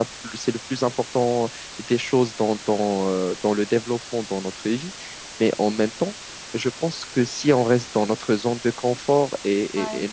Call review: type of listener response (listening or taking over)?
listening